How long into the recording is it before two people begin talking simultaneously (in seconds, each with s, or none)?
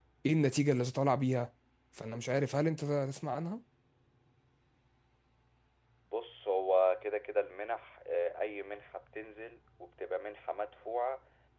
none